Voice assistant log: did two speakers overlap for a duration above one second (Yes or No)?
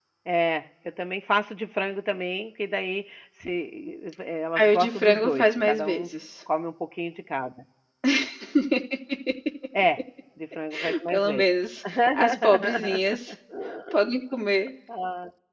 Yes